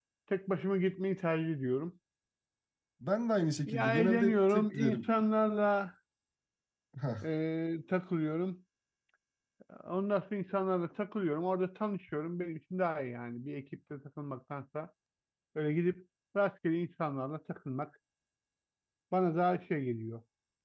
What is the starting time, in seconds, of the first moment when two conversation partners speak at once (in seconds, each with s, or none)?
3.7 s